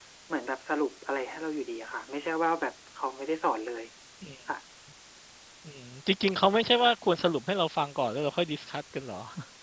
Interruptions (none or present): none